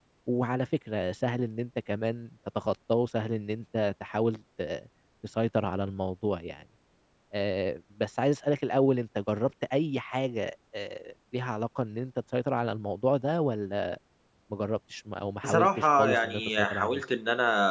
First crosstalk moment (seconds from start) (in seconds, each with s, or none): 15.4 s